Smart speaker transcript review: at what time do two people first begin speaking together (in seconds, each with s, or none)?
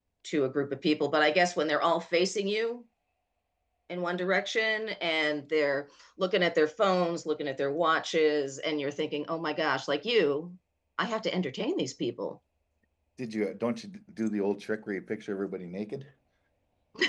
none